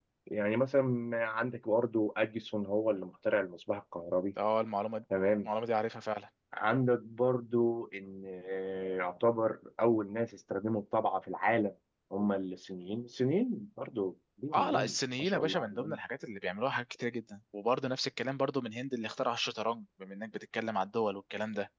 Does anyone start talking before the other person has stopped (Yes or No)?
Yes